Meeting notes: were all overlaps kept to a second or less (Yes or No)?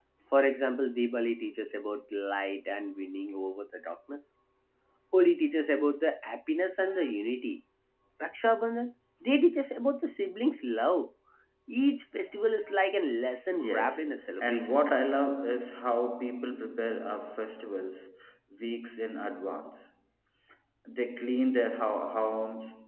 No